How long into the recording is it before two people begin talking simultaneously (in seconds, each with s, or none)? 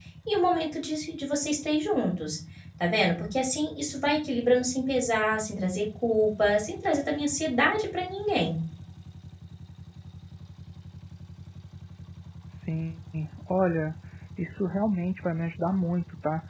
none